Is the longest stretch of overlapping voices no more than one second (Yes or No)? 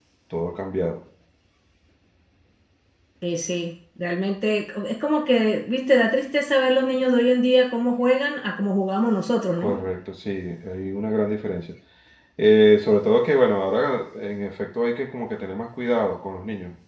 Yes